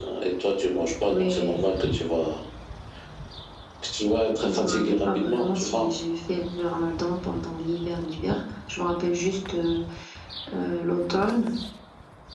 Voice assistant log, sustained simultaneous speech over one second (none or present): present